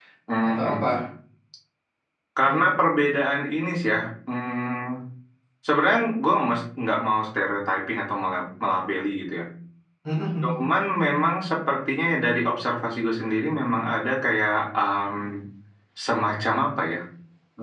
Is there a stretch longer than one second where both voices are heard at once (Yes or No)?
No